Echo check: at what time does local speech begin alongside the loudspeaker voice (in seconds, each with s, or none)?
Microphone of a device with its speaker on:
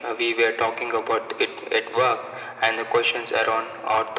none